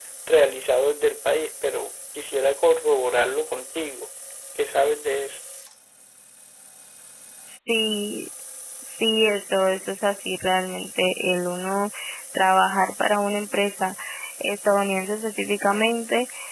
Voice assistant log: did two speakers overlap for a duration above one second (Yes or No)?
No